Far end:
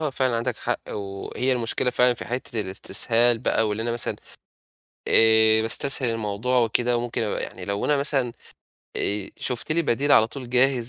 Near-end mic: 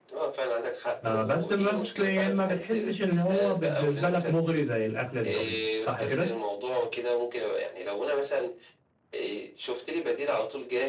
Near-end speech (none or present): present